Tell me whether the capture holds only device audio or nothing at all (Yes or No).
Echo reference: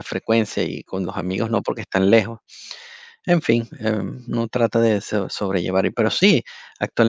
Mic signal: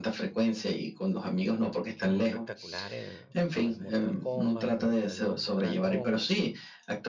No